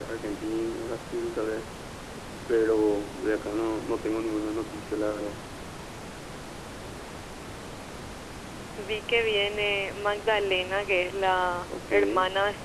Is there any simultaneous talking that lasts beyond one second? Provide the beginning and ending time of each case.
none

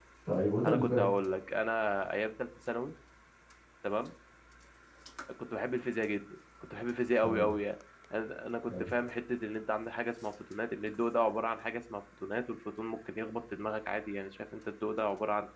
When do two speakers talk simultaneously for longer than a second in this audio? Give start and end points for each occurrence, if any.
none

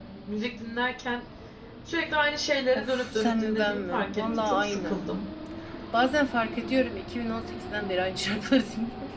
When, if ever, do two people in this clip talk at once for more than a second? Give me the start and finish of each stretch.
2.8-5.0

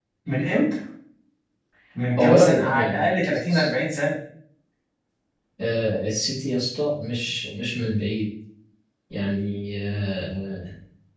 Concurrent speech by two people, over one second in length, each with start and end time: 2.2-3.7

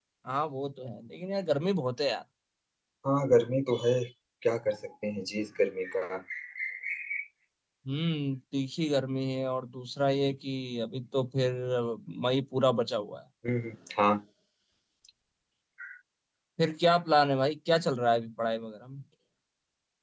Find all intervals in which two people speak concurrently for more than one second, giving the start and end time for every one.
none

